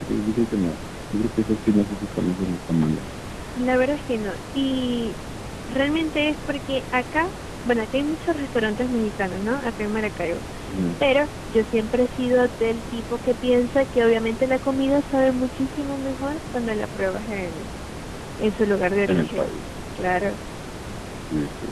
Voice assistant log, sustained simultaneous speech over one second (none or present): none